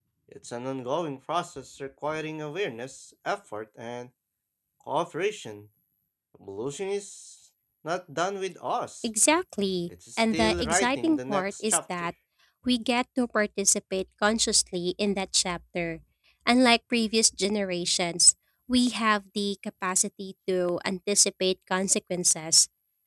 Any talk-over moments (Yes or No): Yes